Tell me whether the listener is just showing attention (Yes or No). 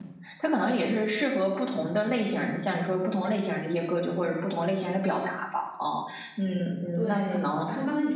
No